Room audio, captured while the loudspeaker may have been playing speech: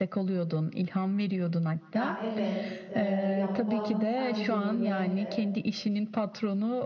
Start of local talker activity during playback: 1.9 s

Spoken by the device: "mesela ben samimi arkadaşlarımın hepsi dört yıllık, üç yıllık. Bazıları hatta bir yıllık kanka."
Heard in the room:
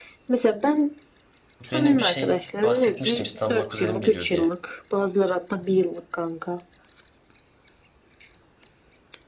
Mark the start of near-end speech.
1.6 s

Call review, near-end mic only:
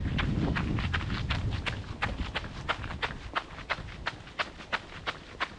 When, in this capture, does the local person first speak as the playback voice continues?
none

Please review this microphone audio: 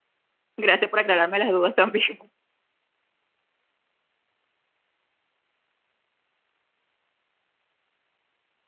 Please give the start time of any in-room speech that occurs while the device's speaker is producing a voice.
0.6 s

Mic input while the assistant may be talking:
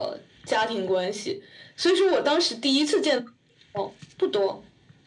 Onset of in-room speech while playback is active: none

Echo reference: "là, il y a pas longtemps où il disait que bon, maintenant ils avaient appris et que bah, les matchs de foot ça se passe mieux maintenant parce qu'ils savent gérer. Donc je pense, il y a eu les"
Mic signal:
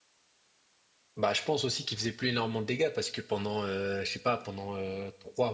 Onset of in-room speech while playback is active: 1.2 s

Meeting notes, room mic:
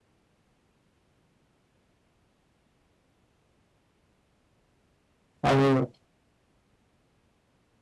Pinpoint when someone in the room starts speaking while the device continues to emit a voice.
5.4 s

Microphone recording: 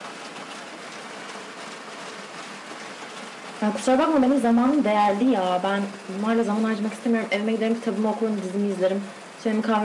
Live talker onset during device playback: 3.6 s

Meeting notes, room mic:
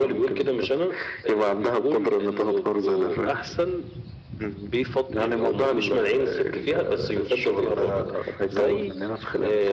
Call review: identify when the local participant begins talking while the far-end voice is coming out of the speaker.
none

